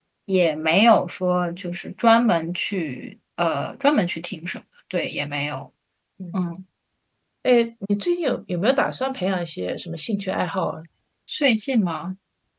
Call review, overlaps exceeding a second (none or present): none